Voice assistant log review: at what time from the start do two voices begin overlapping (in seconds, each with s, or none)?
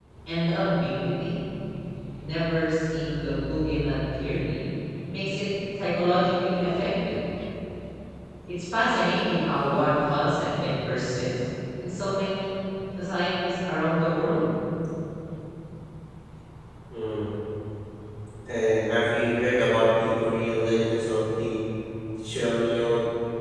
none